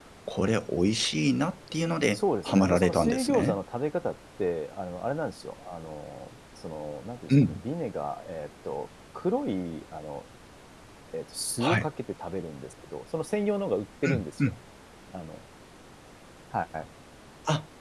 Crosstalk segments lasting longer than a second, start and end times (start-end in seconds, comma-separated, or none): 2.1-3.6